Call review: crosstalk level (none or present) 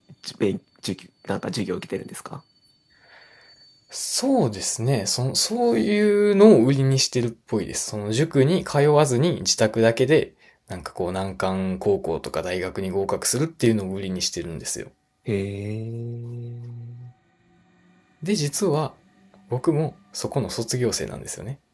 none